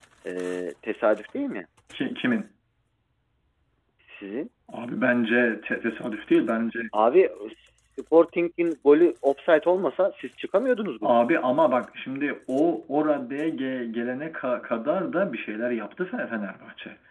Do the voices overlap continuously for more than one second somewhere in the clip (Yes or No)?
No